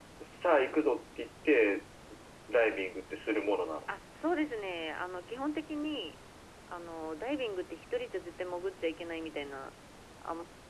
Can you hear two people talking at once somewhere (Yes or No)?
No